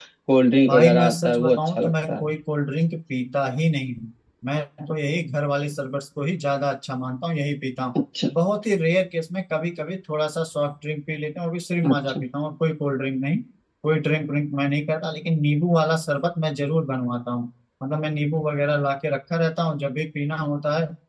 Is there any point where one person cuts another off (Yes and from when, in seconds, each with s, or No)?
Yes, from 0.7 s